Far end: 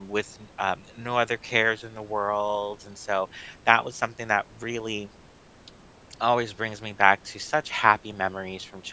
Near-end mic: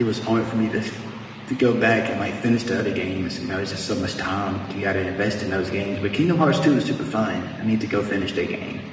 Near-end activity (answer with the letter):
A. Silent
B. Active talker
B